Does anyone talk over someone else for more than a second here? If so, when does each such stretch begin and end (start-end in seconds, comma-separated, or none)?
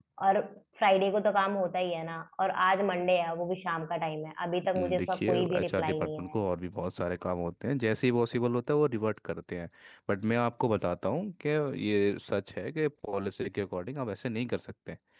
4.7-6.4